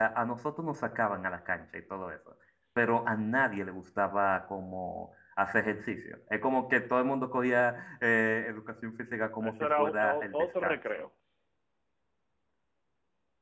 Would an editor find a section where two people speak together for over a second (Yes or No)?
Yes